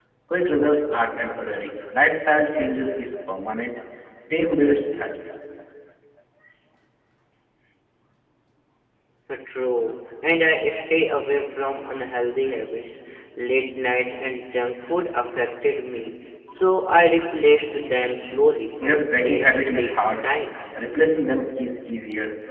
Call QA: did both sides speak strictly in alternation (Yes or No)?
No